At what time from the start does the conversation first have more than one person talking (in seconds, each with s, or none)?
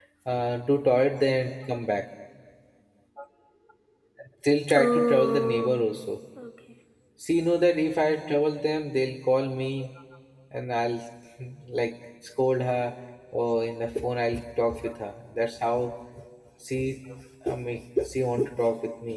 4.7 s